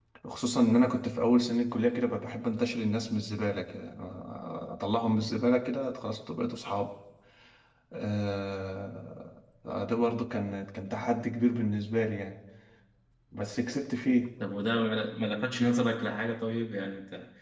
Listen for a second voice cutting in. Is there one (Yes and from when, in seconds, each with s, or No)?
No